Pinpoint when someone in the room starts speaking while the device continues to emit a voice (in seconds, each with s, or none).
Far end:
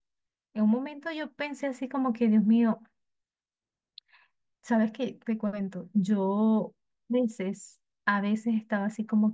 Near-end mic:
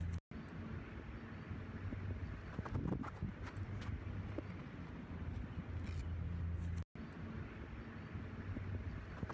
none